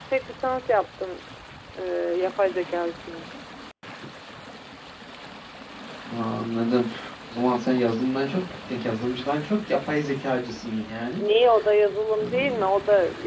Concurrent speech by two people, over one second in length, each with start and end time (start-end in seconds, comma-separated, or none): none